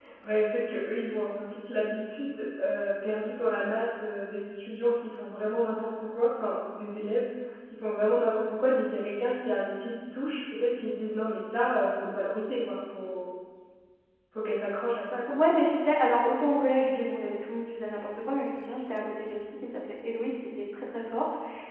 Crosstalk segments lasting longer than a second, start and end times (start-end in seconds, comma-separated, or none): none